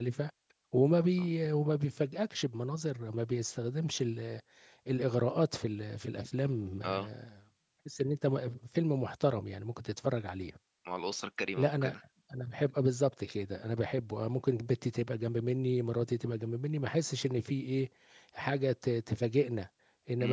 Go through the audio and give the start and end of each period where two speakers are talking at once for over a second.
none

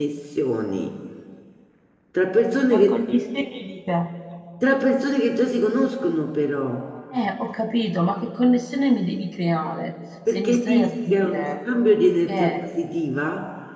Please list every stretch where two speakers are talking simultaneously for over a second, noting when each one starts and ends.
10.3-11.5

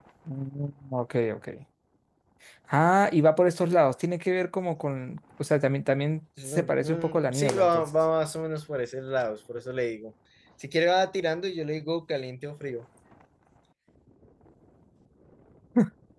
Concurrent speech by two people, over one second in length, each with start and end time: 6.4-7.9

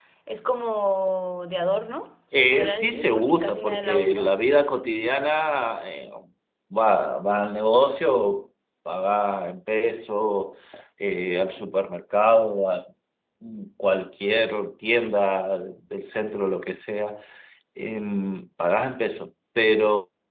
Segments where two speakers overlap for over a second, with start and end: 2.3-4.3

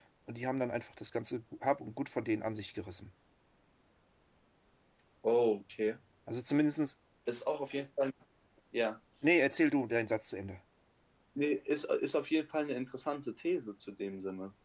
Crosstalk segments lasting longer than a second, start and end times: none

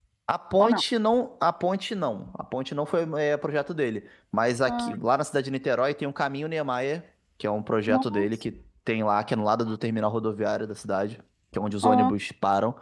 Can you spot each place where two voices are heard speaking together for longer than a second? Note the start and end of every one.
none

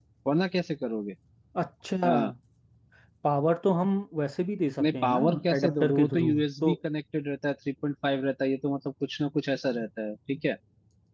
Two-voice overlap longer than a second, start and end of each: 4.8-6.7

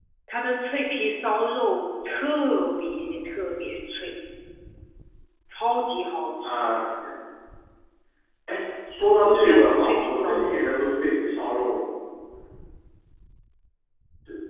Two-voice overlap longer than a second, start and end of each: 9.2-10.6

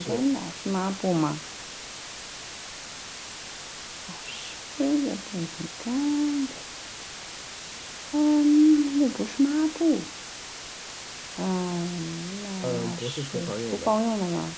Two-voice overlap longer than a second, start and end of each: 12.6-13.9

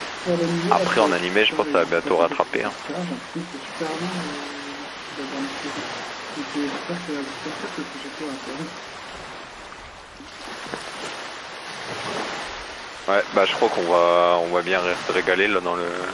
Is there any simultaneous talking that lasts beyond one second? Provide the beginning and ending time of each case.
0.7-2.8

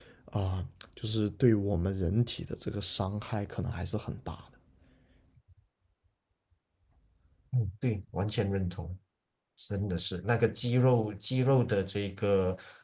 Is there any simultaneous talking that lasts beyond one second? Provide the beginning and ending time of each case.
none

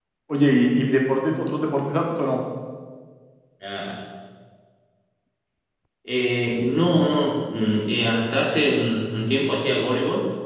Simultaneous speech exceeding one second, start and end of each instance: none

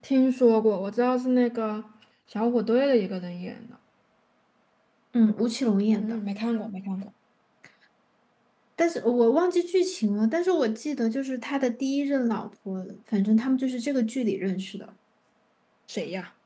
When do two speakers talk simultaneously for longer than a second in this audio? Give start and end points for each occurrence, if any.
none

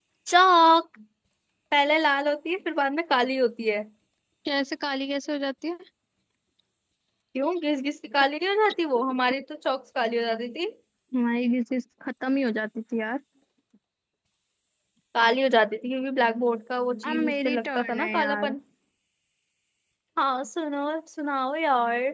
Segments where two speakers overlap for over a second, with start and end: 17.1-18.6

